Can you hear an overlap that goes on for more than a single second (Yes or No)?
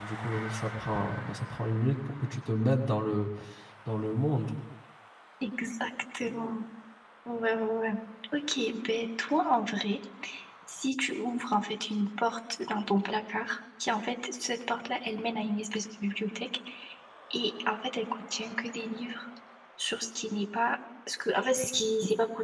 No